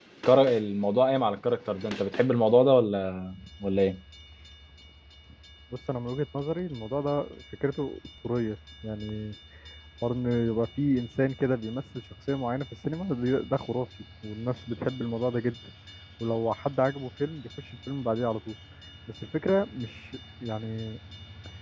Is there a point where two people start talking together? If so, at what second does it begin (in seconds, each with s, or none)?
none